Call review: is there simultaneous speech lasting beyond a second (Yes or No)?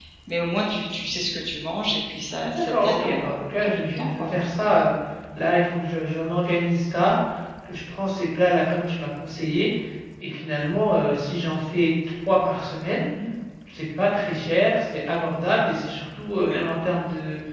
Yes